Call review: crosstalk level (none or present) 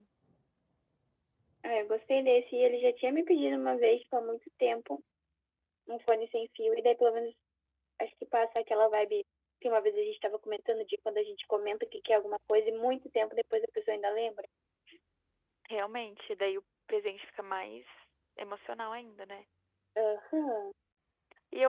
none